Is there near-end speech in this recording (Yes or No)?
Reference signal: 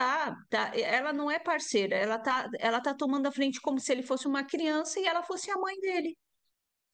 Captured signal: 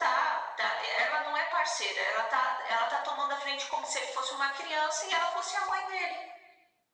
No